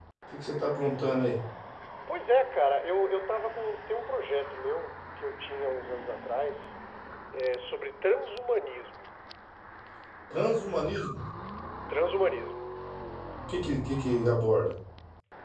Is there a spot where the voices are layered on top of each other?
No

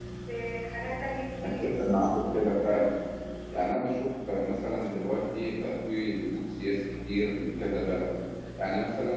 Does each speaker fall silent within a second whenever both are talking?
Yes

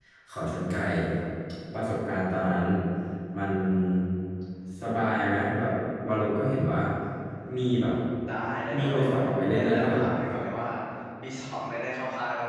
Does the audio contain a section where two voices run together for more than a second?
Yes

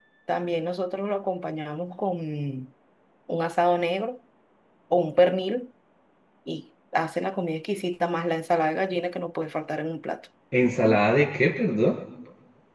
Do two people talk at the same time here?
No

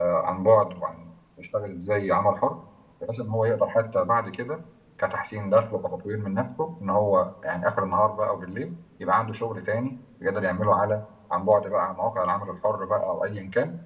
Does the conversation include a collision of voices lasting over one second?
No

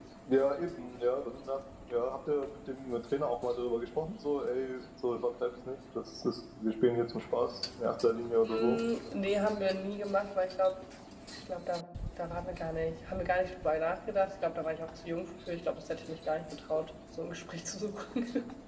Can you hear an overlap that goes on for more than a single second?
No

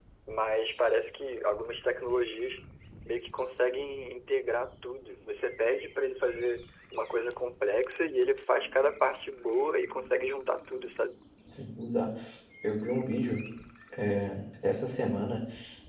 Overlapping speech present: No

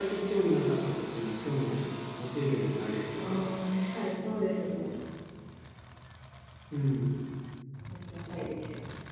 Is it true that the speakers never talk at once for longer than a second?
Yes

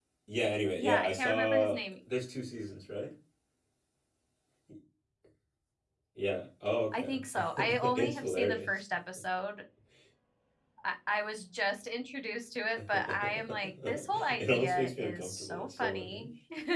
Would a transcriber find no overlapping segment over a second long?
No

